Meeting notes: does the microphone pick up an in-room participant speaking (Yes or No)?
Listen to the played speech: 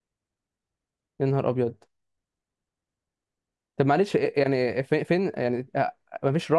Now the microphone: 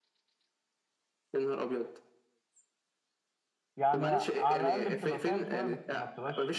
Yes